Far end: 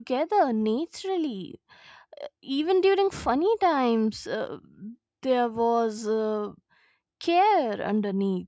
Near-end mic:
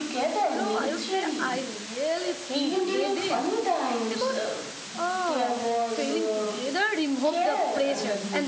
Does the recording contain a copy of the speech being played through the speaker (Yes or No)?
Yes